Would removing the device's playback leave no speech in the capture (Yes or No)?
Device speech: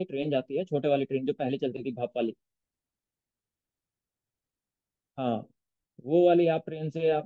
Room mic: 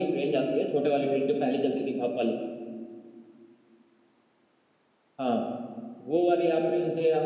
Yes